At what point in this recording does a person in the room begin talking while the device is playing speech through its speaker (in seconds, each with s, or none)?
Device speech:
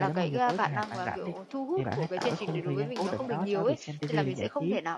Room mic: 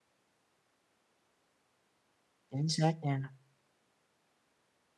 2.5 s